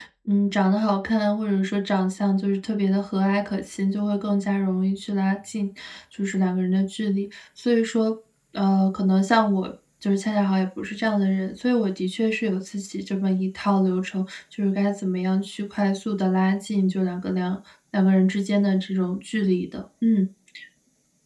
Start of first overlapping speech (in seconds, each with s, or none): none